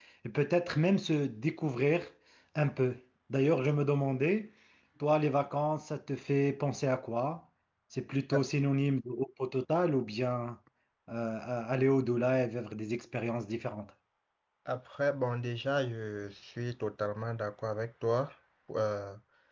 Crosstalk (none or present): none